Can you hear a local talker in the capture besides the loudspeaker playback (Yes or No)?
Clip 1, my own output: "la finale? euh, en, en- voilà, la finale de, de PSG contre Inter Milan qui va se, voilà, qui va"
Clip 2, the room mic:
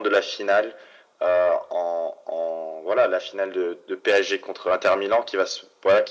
No